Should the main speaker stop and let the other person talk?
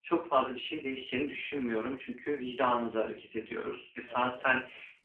No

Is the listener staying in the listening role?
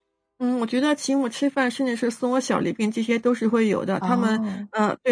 Yes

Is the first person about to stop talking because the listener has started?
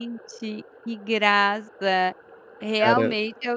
No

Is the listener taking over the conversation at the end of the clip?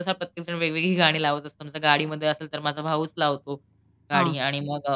No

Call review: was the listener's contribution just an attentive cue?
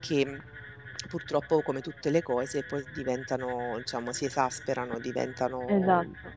No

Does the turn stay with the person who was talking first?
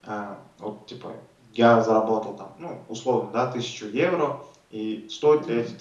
Yes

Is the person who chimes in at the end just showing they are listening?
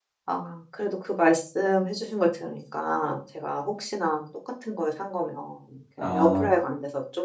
Yes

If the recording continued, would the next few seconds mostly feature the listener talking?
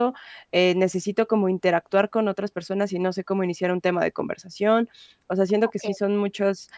No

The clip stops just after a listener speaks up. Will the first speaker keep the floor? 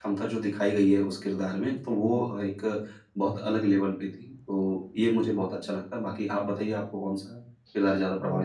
No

